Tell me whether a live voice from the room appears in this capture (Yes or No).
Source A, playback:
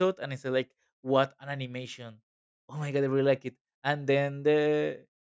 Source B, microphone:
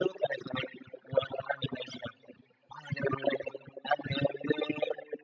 No